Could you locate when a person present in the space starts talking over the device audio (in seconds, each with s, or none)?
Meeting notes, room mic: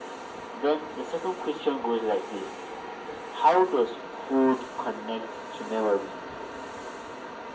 none